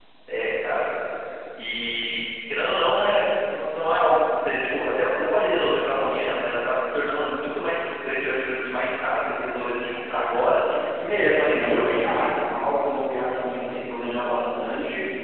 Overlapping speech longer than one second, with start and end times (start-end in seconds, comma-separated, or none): 11.1-12.4